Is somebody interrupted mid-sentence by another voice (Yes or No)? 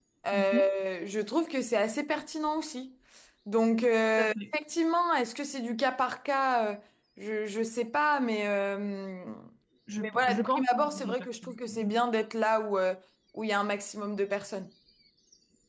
Yes